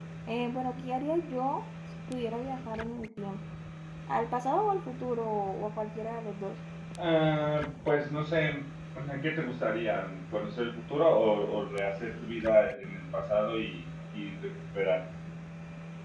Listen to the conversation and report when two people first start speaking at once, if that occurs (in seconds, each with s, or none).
none